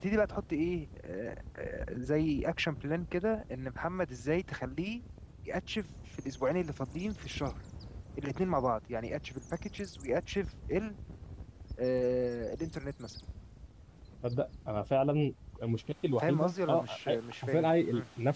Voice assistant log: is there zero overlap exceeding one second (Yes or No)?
No